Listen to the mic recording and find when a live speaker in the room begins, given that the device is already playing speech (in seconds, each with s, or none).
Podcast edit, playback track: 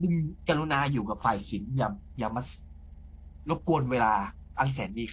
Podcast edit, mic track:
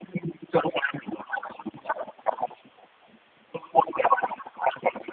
none